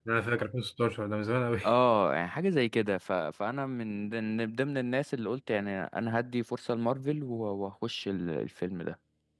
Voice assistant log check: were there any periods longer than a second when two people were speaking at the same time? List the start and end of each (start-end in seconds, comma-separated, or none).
none